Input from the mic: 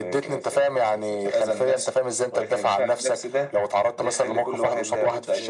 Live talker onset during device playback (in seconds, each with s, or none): none